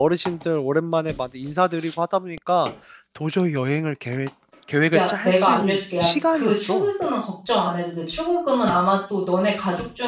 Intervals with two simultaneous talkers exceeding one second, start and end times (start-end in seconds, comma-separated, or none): 5.0-6.9